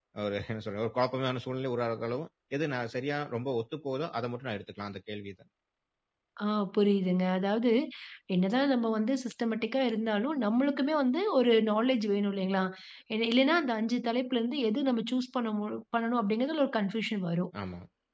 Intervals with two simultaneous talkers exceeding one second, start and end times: none

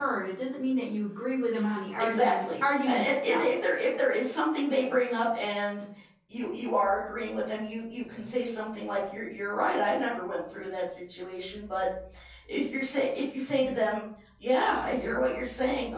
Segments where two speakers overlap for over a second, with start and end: 2.0-3.5

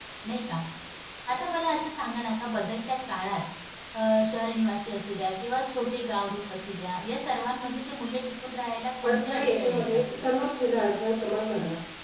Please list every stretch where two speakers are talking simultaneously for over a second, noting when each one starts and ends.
9.0-10.3

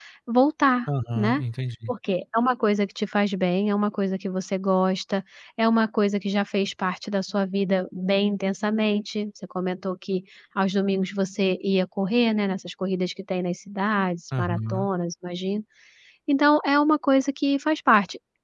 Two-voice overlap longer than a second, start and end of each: none

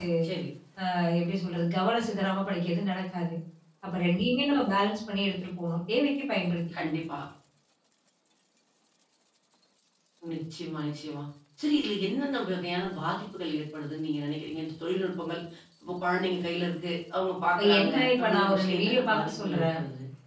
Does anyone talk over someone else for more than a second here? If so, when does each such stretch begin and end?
17.6-19.8

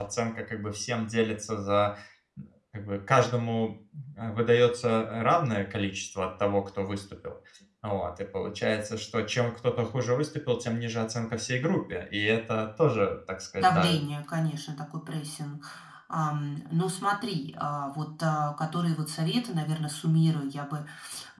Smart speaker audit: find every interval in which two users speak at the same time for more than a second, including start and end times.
none

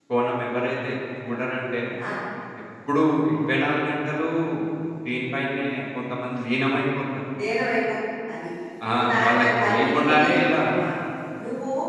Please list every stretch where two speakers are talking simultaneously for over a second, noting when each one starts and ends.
8.9-10.4

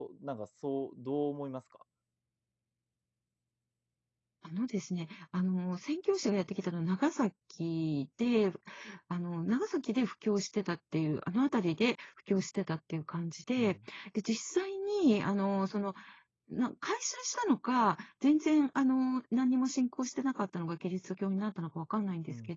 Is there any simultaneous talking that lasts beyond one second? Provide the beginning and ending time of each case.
none

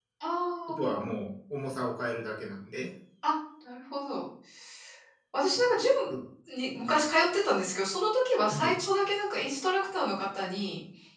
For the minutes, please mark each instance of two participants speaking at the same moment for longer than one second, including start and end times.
none

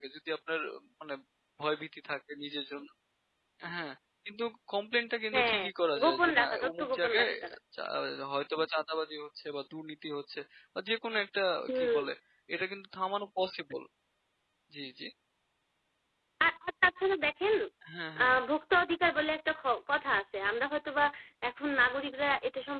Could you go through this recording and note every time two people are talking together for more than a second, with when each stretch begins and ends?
6.0-7.3

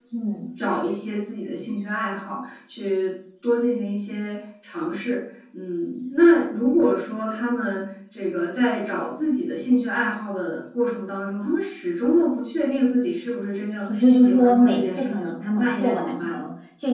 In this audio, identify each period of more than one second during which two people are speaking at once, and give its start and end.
14.1-16.4

